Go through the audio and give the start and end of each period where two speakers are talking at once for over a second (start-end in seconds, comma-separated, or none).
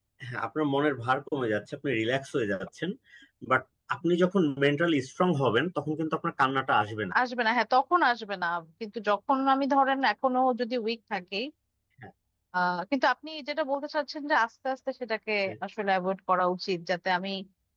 none